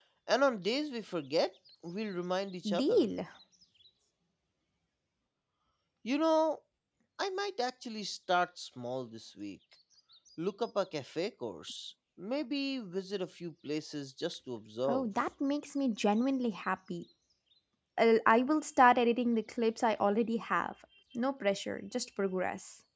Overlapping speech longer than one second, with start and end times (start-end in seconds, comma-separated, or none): none